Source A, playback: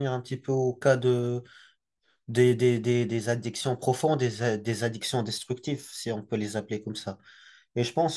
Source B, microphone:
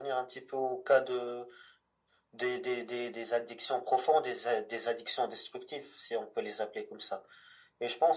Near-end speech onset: none

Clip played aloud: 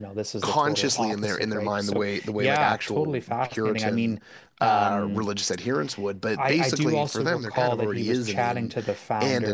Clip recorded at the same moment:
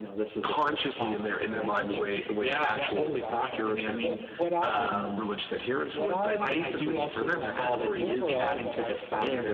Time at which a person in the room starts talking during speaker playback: 1 s

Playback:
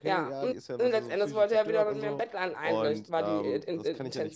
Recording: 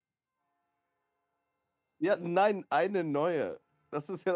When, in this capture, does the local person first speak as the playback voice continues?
2 s

